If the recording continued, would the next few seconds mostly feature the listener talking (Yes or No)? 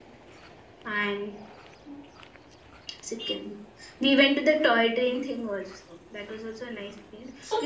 Yes